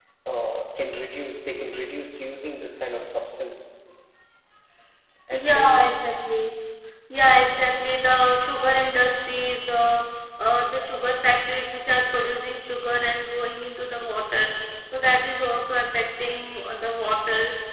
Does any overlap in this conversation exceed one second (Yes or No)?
No